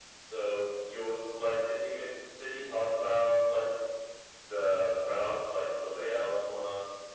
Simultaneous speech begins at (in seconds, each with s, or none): none